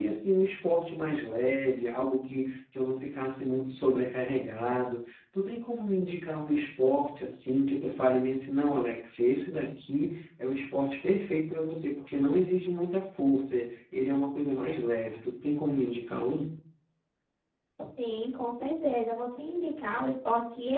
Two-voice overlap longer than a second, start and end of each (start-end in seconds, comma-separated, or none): none